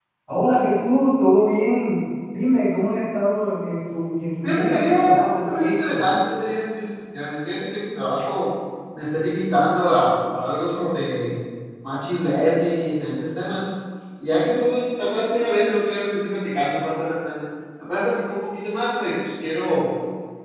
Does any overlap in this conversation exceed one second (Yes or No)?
Yes